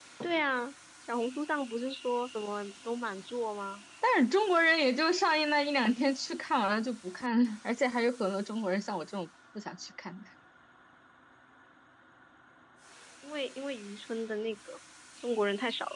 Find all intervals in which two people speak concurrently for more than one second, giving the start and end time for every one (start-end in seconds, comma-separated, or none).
none